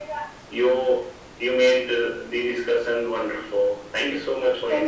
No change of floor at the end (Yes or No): No